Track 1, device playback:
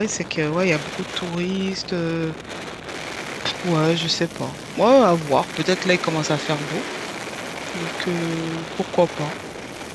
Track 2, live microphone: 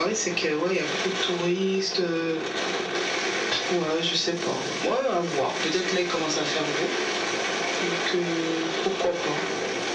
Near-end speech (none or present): none